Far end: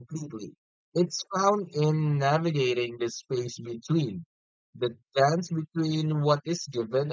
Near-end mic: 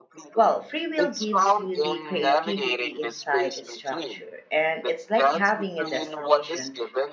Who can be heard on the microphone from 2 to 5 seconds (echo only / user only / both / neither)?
both